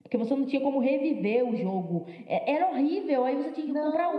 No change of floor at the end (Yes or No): No